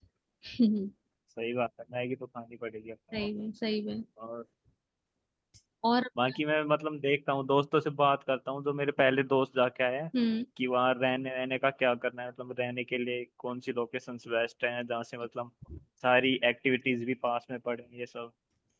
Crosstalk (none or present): none